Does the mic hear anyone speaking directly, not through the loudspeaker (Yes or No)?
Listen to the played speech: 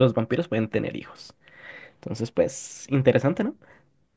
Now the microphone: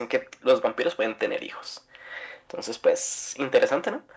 No